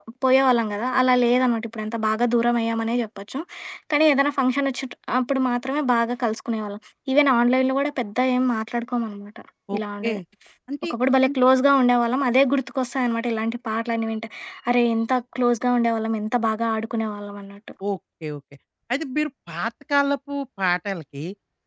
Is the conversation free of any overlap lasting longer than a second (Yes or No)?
Yes